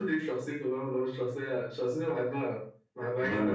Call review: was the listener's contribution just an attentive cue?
Yes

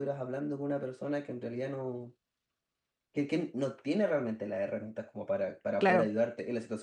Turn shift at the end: No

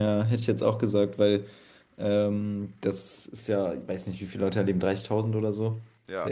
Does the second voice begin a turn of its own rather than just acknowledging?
No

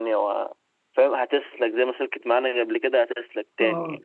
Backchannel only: Yes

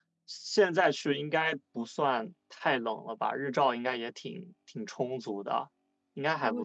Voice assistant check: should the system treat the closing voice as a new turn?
Yes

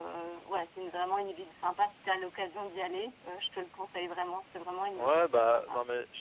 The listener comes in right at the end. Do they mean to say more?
Yes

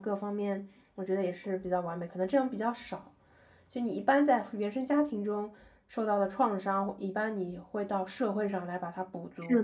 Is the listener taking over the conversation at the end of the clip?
Yes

